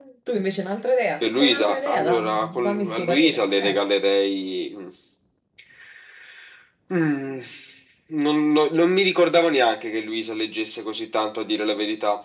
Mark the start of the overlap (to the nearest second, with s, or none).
1 s